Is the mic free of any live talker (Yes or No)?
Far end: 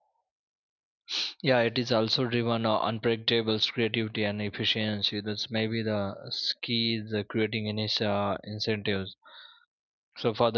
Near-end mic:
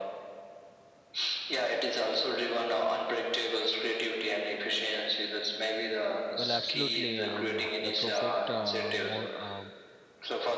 No